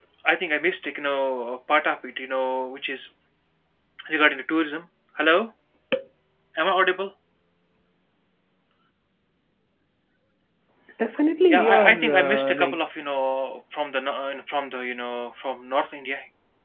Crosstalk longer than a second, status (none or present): present